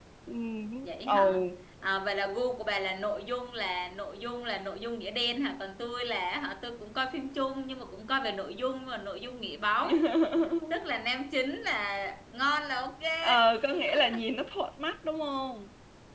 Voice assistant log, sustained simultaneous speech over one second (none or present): none